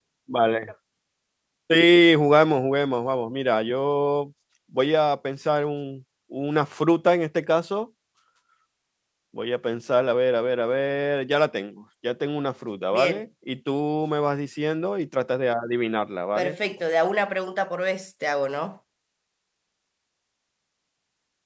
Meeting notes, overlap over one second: none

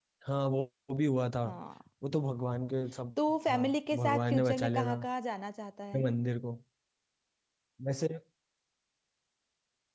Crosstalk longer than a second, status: present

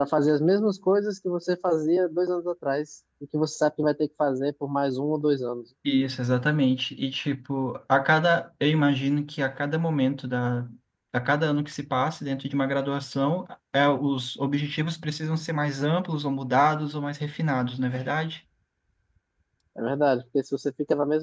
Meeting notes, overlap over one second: none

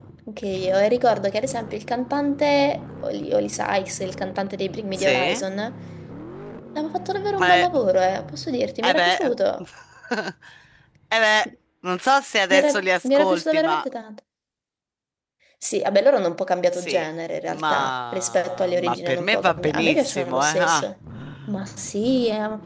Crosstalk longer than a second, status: present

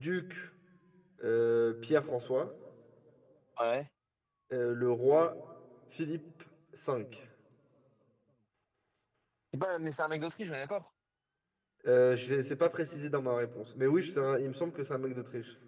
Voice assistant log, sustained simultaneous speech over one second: none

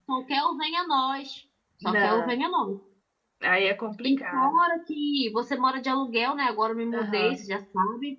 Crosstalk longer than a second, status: none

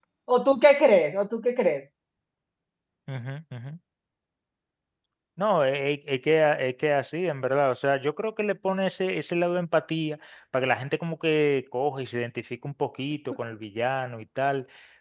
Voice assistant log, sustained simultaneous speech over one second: none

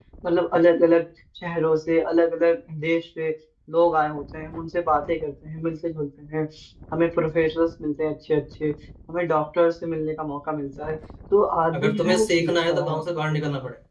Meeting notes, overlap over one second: present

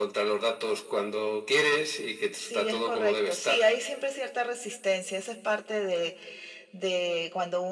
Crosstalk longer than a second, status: present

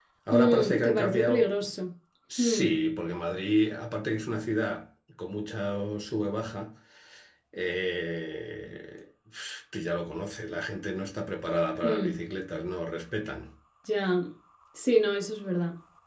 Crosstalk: present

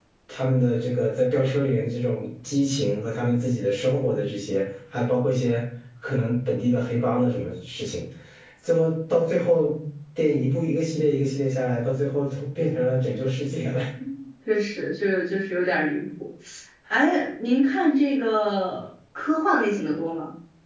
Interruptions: none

